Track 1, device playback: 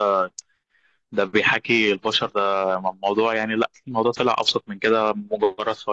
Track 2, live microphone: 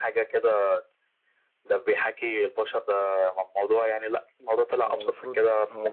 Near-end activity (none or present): present